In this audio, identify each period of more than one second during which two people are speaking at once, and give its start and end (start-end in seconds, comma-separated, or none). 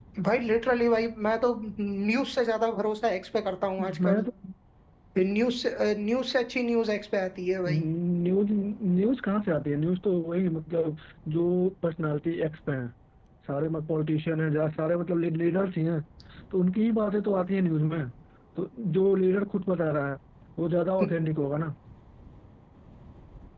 none